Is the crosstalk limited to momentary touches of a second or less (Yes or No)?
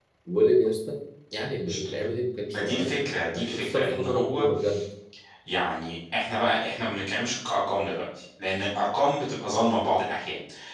No